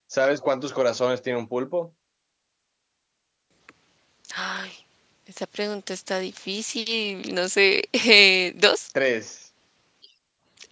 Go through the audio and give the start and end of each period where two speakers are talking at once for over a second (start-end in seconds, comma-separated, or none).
none